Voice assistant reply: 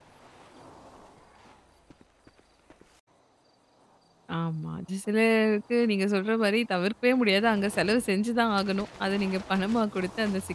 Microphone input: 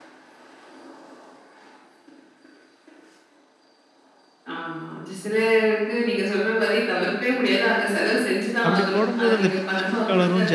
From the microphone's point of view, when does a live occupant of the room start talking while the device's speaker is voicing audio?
9 s

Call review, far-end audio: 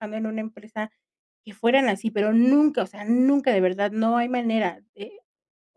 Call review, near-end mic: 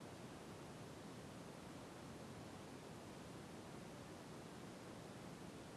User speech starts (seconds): none

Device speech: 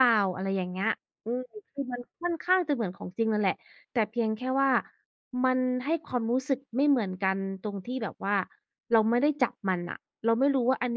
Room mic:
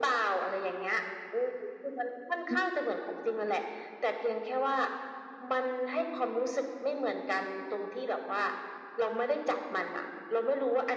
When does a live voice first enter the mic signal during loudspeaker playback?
2 s

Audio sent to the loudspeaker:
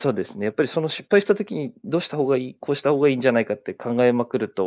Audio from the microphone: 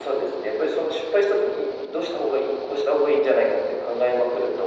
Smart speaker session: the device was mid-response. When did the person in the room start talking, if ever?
none

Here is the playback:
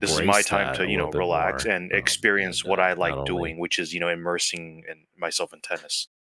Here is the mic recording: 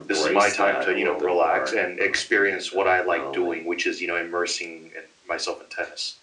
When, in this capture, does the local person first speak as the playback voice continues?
none

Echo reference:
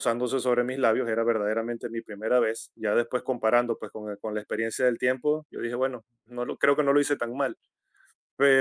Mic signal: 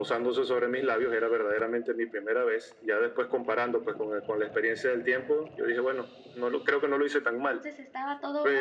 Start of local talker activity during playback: 7 s

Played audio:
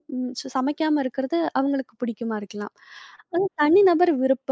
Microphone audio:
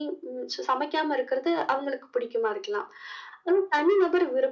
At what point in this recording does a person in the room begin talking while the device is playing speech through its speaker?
none

